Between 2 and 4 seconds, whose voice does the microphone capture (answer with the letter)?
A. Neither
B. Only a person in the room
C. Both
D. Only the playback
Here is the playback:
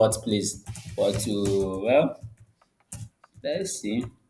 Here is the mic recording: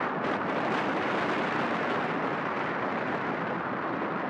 A